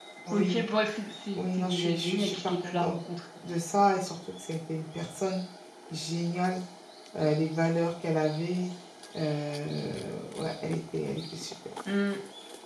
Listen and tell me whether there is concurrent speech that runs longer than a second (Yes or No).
Yes